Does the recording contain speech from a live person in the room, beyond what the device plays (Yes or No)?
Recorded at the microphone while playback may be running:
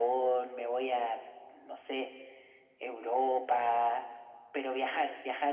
No